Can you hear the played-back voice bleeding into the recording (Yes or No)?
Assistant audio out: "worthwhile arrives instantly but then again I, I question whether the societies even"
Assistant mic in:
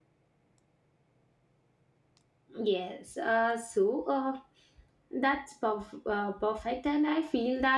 No